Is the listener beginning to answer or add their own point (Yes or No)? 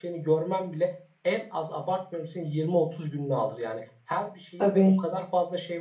No